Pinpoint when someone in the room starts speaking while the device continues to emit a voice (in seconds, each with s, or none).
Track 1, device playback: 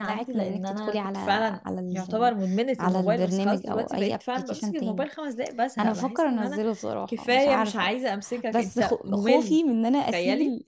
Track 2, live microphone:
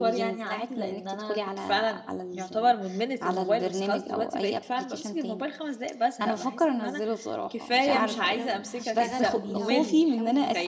7.8 s